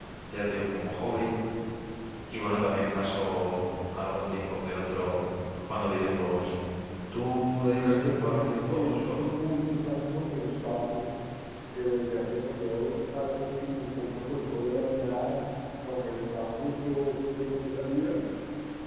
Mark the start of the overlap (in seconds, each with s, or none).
8.0 s